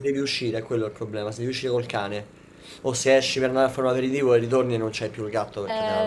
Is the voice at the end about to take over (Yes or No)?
Yes